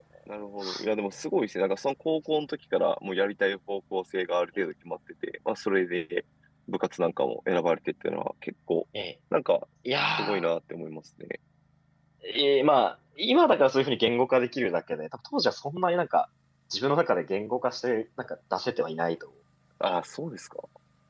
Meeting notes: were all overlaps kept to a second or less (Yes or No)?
Yes